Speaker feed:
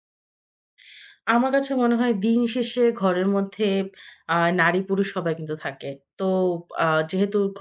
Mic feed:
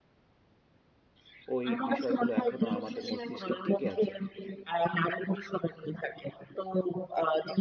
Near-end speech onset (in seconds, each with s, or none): 1.5 s